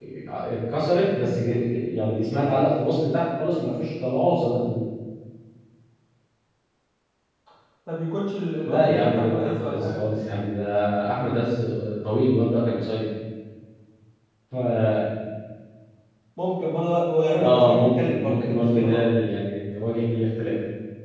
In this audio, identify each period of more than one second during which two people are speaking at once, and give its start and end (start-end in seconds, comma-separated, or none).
8.7-10.0, 17.4-19.0